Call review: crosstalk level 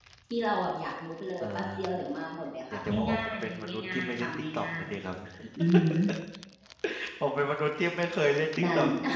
present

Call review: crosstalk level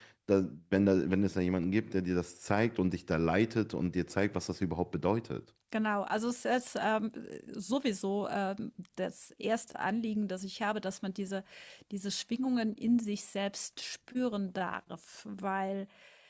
none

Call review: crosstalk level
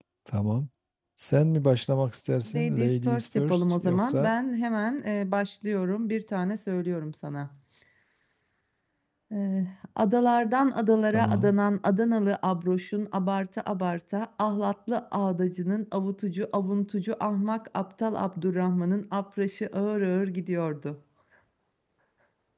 present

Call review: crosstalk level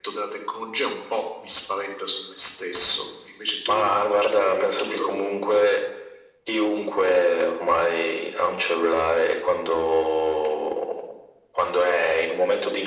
present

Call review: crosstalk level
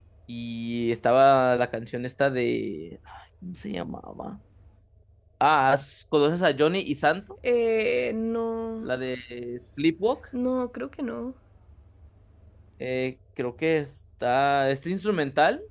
none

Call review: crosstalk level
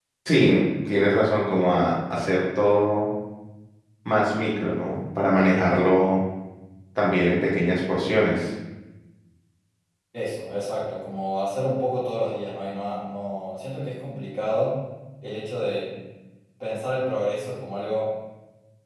none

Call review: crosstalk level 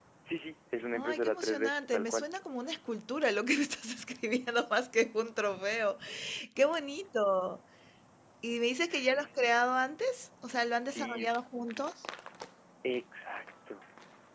present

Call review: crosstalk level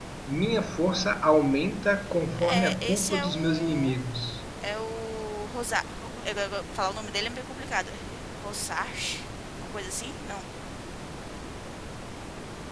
present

